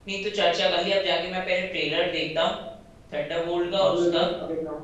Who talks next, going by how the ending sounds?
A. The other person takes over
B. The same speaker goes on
A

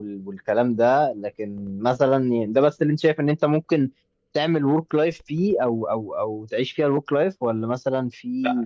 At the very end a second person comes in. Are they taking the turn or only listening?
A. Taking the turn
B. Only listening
A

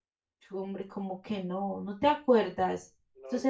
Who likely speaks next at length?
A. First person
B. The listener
A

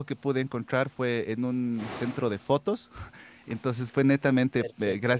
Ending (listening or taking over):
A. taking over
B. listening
B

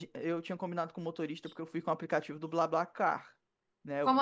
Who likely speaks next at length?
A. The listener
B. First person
B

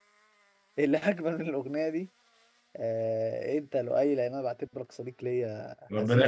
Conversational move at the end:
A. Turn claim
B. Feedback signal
A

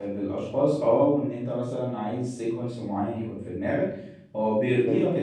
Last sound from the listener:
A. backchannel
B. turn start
A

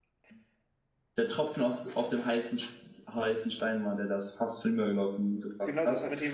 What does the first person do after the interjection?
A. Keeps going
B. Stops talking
B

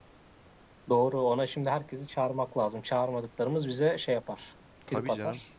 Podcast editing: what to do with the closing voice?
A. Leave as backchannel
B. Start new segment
B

